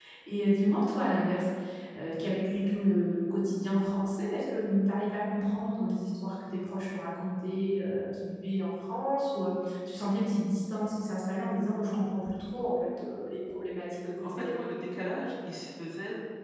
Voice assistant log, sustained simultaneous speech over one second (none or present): none